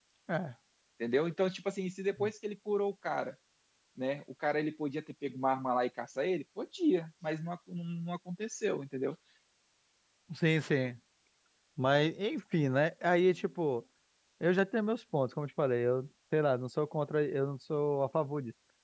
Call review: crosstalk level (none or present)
none